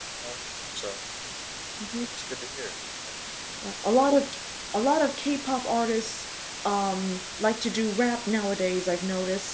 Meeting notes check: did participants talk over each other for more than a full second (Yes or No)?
No